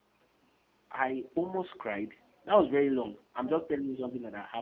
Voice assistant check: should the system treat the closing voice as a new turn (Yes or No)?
No